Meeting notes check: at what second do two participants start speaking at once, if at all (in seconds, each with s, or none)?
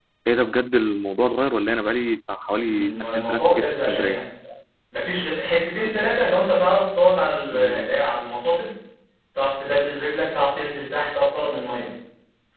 2.6 s